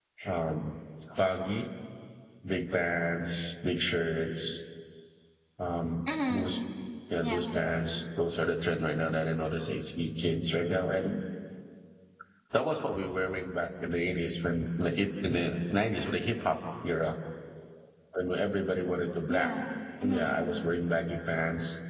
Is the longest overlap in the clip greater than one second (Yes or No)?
No